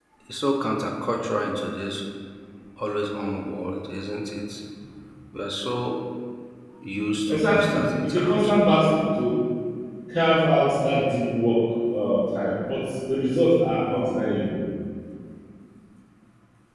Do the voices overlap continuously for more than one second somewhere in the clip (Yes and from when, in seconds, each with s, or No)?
Yes, from 7.2 s